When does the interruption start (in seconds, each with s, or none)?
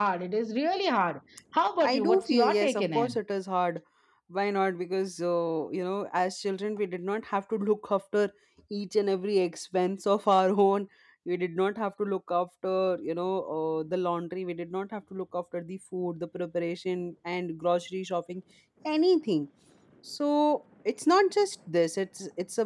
1.8 s